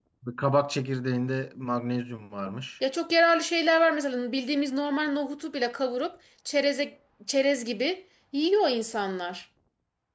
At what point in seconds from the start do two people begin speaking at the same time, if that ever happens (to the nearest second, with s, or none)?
none